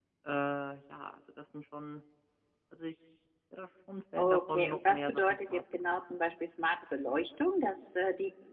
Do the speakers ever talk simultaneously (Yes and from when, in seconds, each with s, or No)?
Yes, from 4.2 s